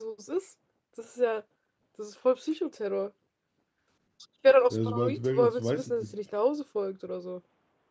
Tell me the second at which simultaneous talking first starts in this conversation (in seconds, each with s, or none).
4.7 s